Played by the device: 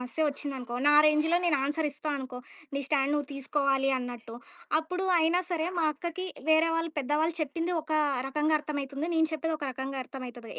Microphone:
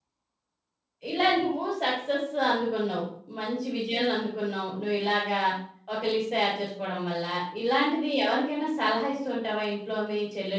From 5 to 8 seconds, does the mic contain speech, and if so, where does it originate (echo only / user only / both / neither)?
user only